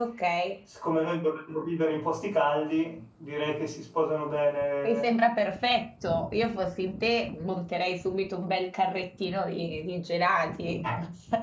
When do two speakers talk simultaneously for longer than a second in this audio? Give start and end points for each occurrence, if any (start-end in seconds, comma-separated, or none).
none